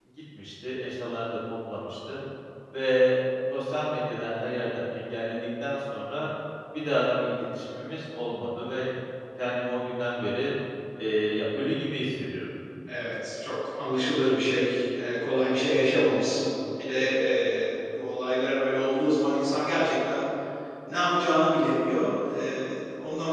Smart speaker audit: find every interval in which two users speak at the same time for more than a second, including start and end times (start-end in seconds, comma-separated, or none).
none